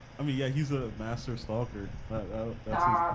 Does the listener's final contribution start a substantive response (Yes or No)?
Yes